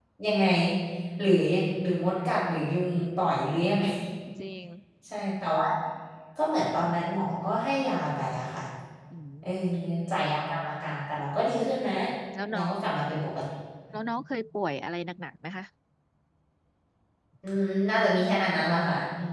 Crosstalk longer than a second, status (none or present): none